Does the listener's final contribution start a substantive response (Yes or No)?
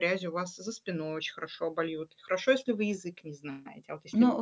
Yes